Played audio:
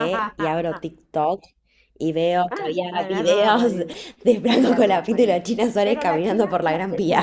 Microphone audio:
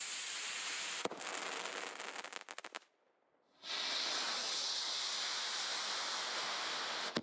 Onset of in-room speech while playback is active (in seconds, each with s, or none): none